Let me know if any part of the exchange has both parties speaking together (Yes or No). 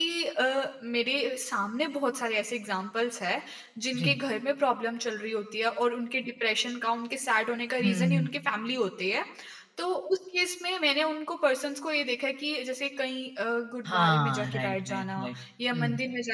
Yes